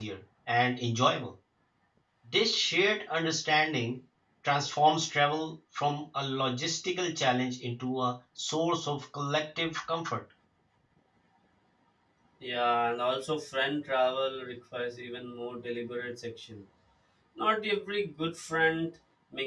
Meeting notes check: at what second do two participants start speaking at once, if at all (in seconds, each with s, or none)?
none